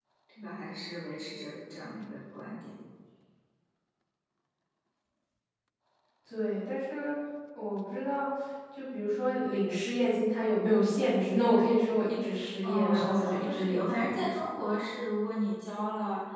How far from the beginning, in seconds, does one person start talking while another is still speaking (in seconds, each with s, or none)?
12.6 s